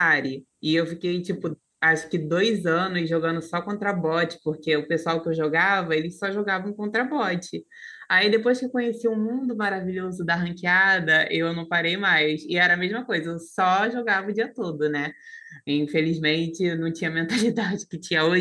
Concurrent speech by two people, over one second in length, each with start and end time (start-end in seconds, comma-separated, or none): none